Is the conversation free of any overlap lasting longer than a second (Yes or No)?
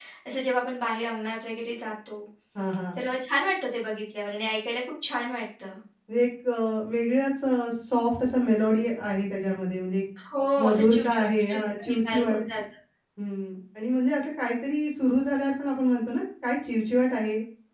No